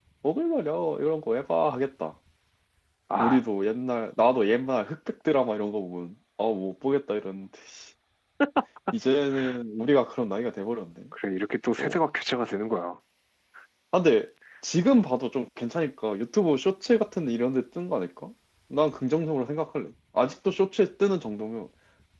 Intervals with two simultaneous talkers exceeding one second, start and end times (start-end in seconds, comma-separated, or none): none